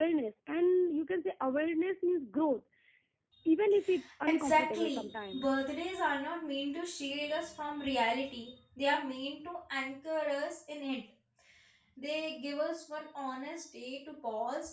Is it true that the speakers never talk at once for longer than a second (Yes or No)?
No